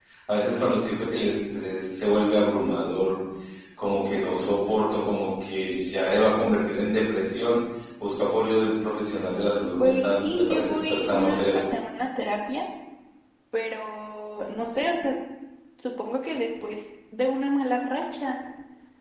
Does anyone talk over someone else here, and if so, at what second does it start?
9.8 s

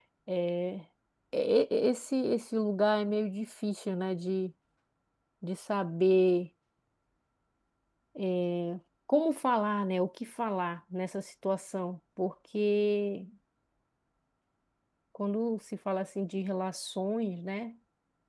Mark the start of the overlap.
none

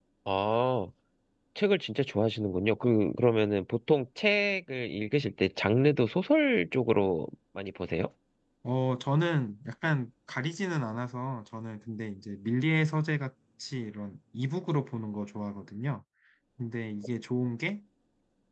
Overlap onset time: none

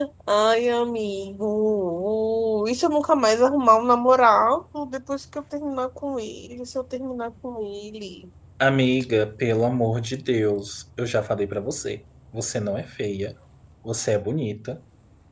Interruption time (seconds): none

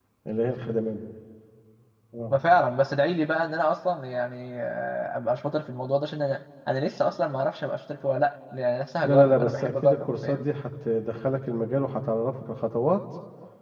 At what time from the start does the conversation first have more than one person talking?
9.0 s

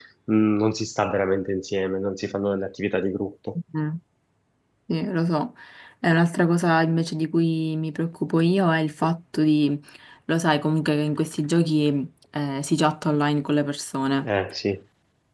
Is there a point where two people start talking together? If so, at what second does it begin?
none

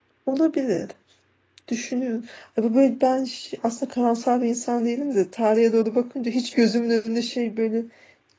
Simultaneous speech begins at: none

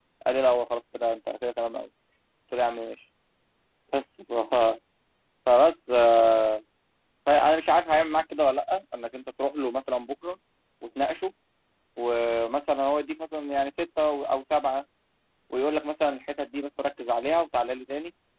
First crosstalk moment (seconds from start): none

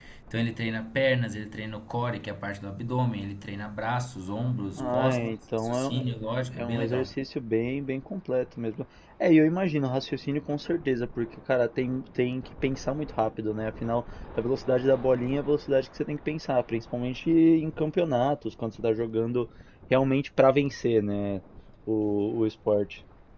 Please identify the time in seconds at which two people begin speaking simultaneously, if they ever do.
4.8 s

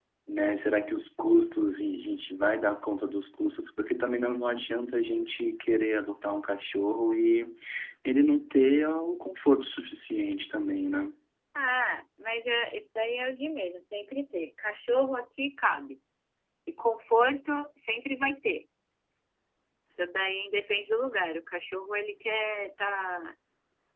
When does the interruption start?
none

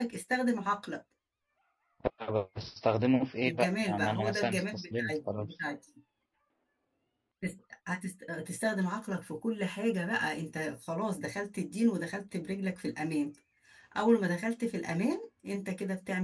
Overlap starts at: 3.4 s

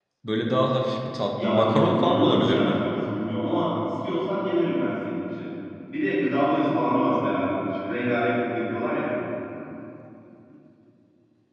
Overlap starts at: 1.4 s

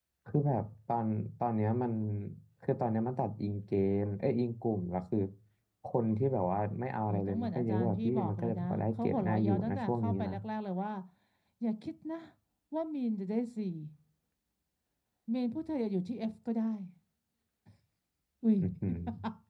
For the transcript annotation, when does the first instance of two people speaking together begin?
7.1 s

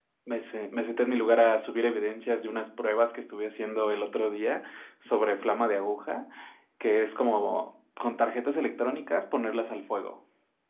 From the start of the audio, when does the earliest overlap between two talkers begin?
none

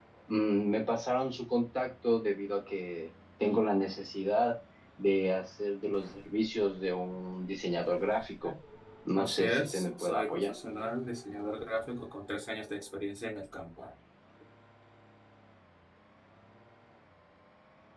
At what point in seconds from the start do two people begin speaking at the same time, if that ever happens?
9.2 s

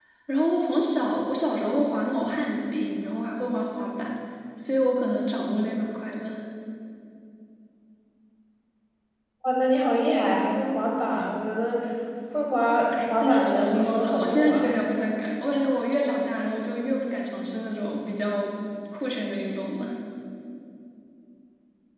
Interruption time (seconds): 12.9 s

